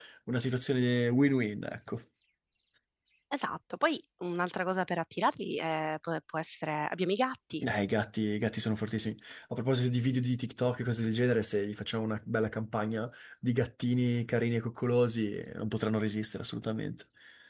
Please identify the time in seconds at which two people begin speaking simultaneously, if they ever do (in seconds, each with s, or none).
none